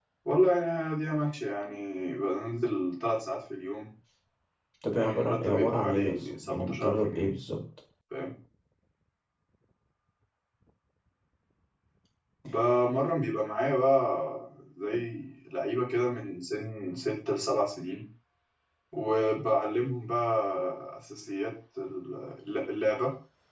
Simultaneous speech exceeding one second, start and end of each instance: 4.9-7.3

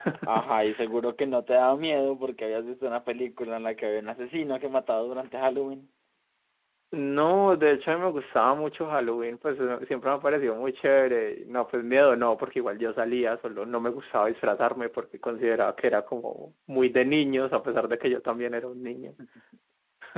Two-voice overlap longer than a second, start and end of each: none

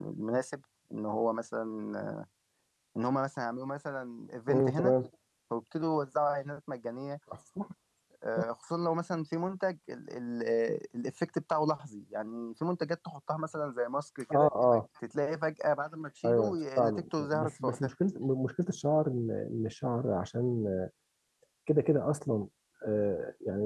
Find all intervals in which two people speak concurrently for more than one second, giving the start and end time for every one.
16.3-17.9

